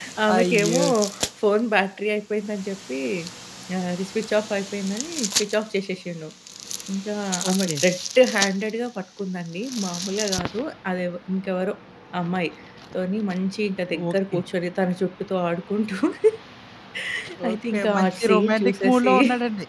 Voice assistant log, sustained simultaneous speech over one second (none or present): present